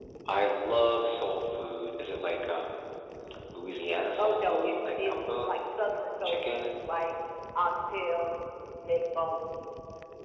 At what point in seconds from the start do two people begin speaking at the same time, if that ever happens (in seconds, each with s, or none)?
4.2 s